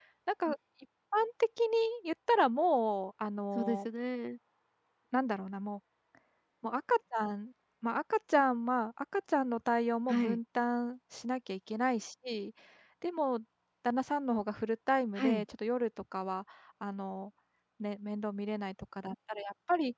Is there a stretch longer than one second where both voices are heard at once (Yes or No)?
No